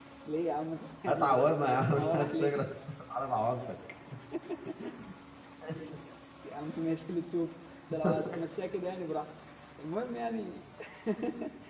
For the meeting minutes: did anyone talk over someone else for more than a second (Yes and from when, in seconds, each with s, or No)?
Yes, from 1.1 s